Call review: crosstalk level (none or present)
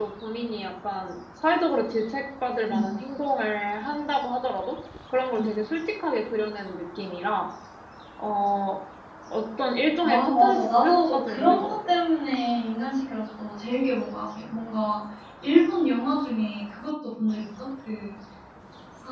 present